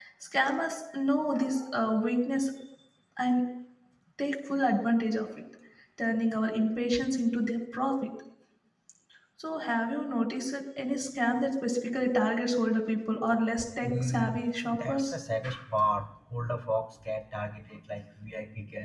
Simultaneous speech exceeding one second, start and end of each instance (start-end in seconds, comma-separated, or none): 13.8-15.1